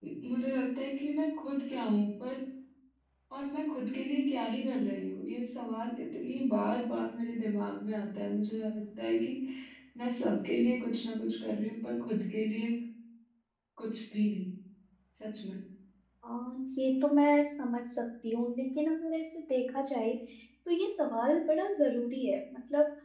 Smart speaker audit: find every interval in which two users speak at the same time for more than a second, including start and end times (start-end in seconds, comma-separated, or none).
none